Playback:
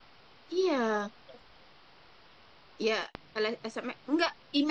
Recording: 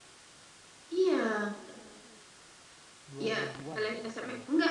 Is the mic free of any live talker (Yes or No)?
No